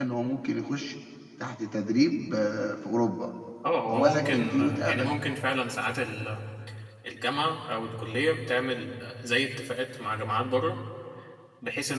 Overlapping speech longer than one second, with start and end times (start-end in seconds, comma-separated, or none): 3.9-5.2